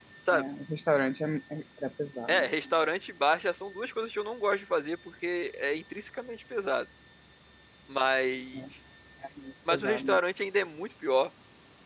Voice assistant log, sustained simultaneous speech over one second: none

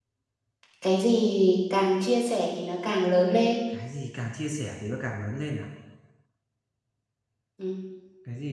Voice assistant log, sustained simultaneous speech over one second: none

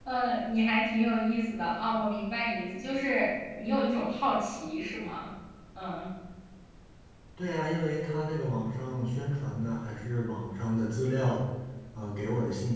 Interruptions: none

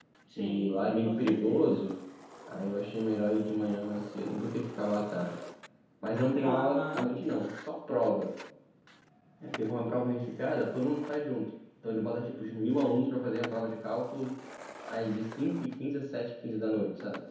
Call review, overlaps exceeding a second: present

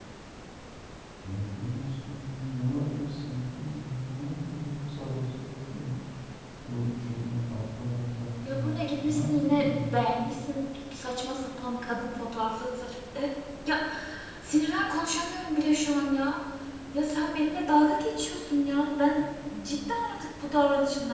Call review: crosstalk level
present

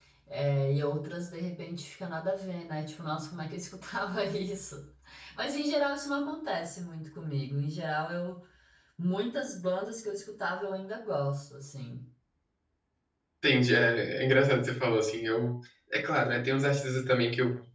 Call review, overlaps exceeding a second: none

